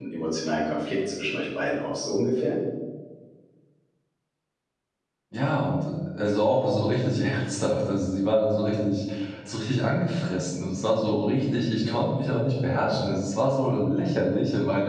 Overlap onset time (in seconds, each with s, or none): none